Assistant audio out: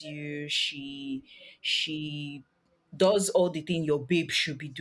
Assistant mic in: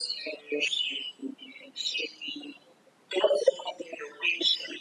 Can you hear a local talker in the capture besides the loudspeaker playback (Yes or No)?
No